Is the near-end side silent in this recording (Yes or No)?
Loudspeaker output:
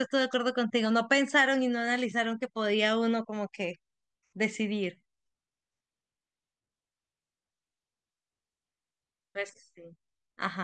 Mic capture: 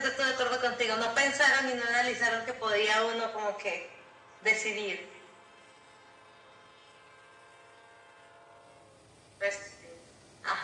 Yes